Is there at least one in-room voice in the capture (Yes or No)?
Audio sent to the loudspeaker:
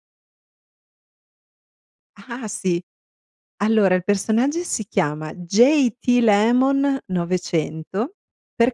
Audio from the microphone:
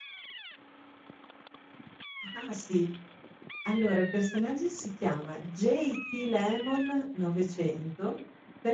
No